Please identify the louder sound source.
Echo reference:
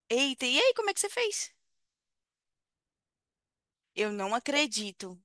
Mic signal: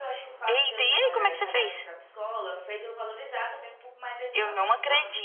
echo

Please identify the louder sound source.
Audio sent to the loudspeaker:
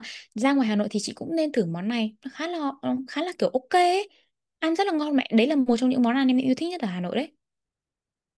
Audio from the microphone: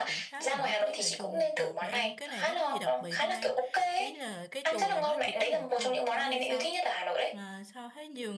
echo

